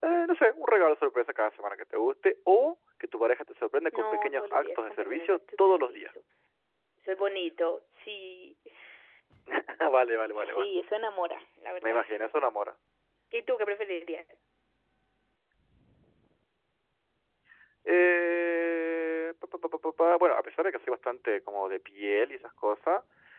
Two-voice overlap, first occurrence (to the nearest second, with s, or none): 4 s